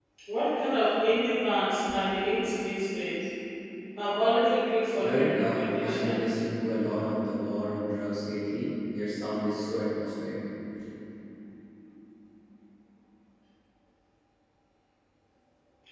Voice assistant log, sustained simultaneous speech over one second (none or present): present